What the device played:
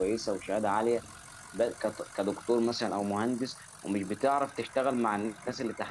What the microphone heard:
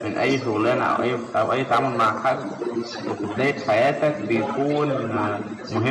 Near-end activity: present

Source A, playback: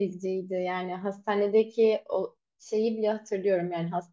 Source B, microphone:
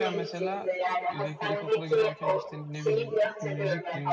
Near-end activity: present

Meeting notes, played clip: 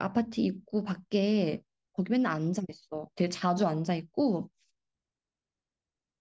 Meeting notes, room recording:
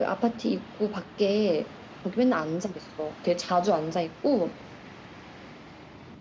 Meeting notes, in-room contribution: none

